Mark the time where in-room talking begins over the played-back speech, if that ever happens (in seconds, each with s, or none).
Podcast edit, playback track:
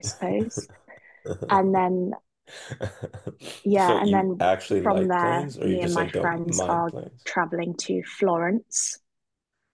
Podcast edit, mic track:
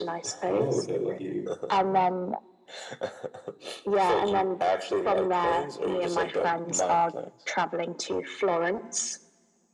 0.5 s